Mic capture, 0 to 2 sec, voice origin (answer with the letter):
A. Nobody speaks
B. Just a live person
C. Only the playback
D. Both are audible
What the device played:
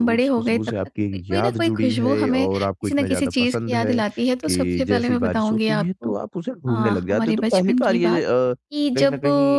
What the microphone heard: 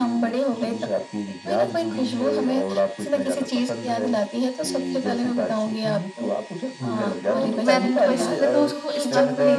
C